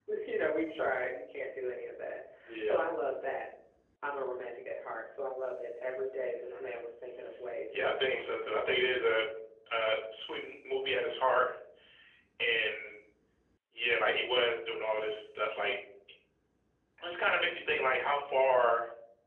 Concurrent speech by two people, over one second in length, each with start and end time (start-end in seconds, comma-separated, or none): 7.7-9.2